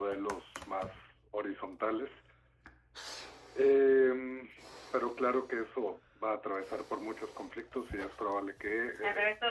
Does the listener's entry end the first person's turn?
Yes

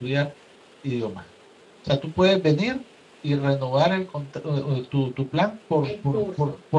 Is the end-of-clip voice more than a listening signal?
No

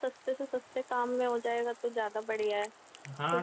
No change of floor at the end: No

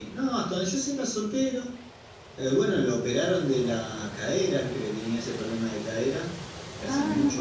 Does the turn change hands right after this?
No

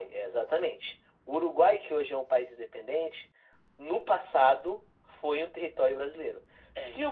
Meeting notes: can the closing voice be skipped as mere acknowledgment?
Yes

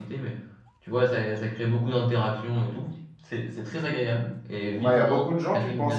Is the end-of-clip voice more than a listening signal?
Yes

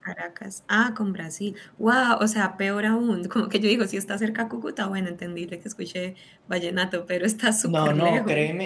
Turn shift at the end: Yes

